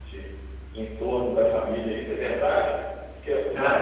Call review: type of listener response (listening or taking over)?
listening